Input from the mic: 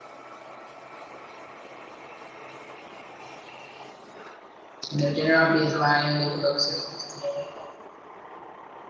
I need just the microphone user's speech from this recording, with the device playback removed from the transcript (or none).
and your general baseline level of self esteem.